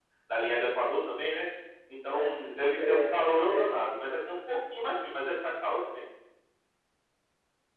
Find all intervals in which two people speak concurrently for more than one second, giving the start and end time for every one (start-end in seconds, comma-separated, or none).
2.1-3.7